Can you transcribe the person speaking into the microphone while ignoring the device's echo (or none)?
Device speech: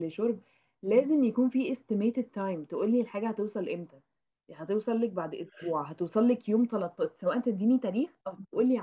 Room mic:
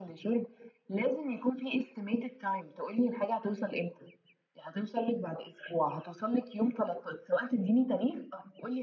none